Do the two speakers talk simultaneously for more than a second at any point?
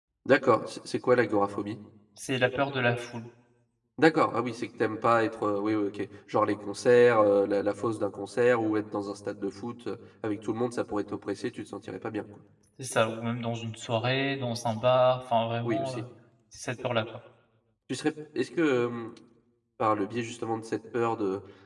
No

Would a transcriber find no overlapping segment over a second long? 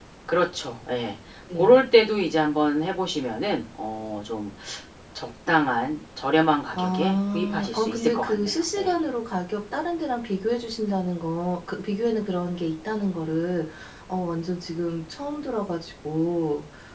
No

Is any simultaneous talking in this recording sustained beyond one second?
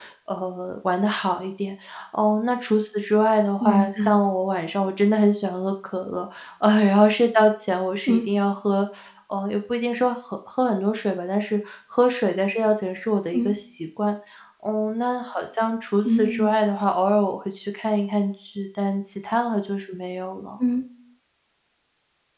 No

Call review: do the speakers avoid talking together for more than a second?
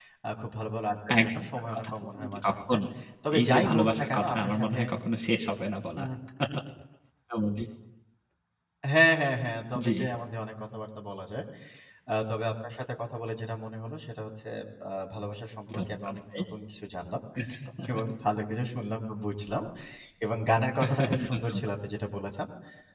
No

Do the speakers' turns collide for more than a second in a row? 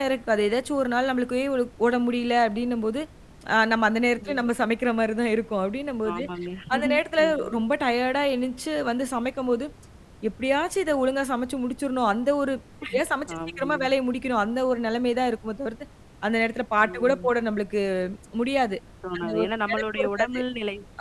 Yes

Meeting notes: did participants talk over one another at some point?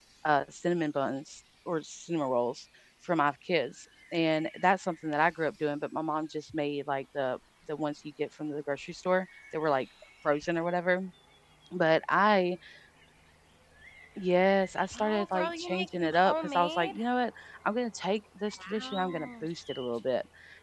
Yes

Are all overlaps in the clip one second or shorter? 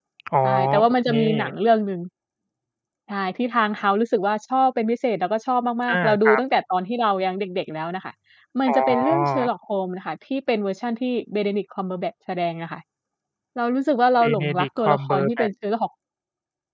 No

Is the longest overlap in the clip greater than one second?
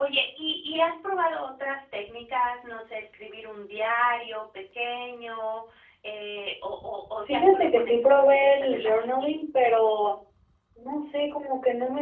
Yes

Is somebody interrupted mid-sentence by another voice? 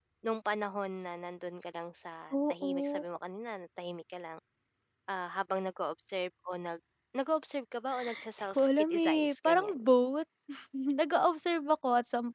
Yes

